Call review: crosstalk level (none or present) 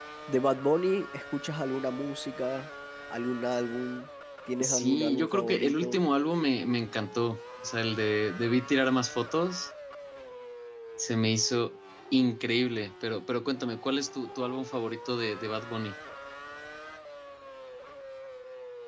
present